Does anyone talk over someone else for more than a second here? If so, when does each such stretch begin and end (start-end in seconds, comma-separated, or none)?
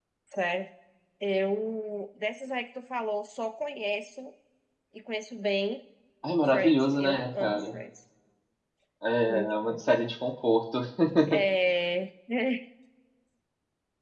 6.5-7.7